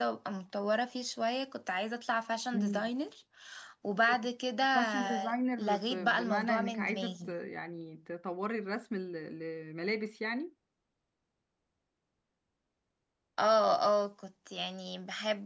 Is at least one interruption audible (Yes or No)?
Yes